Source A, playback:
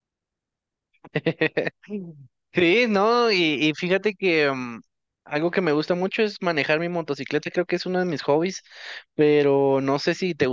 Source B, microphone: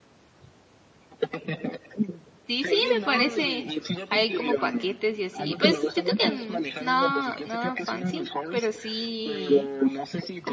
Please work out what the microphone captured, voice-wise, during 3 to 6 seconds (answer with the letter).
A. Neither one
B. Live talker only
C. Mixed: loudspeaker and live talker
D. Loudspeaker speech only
C